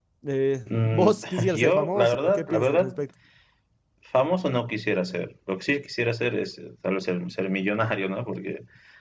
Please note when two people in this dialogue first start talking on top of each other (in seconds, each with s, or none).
0.8 s